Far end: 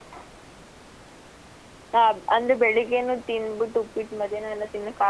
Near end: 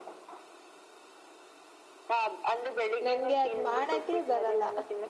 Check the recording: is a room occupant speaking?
Yes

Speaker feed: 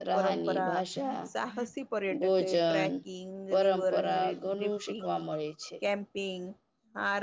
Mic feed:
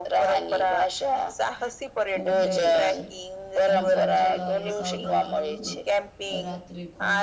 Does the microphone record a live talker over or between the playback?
Yes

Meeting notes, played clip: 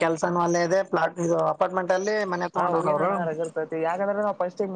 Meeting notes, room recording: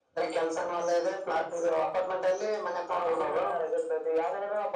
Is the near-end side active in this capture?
No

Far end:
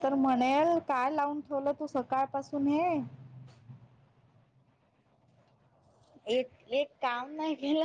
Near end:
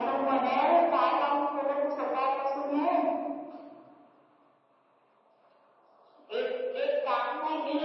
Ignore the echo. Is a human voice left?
No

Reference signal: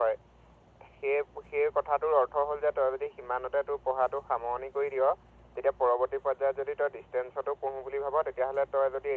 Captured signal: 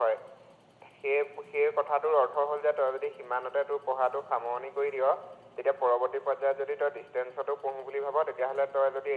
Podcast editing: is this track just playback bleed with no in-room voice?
Yes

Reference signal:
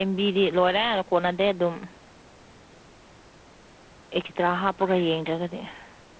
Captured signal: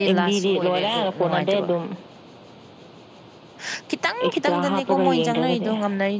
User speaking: Yes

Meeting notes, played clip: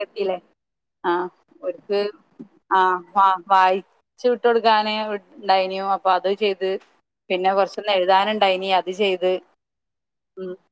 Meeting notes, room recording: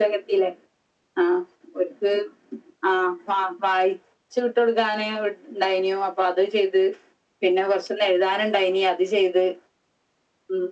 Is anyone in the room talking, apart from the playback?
No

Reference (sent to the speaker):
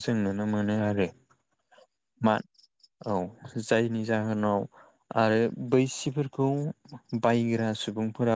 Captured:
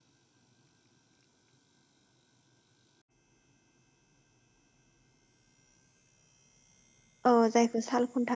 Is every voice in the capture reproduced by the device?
No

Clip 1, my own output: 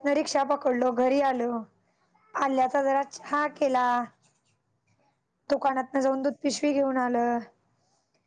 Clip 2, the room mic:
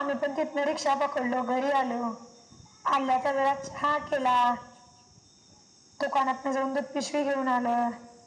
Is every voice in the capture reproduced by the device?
Yes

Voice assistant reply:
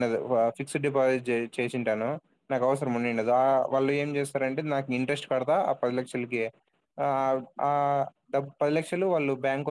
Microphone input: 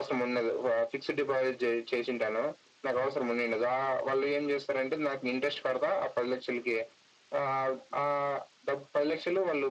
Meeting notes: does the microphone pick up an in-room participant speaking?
No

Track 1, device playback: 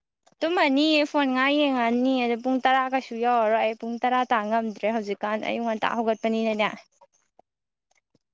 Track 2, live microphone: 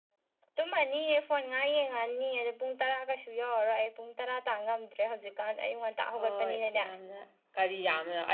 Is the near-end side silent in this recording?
No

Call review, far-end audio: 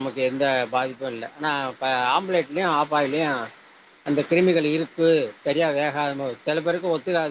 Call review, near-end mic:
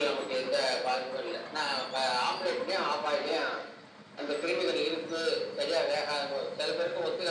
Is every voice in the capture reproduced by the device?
Yes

